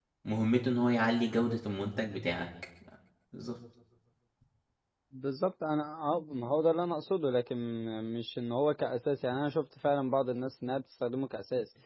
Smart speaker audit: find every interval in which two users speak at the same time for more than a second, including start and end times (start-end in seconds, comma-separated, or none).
none